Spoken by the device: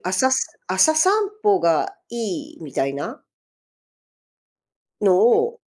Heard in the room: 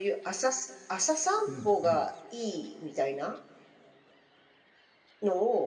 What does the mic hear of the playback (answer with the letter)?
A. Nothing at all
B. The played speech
B